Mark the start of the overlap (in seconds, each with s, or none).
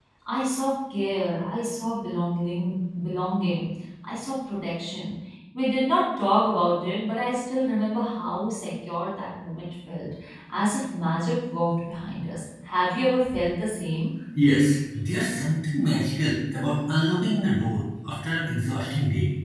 none